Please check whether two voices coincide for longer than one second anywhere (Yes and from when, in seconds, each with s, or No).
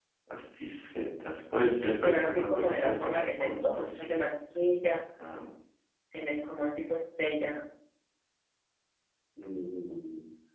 Yes, from 2.0 s